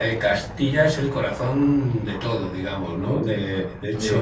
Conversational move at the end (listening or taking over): taking over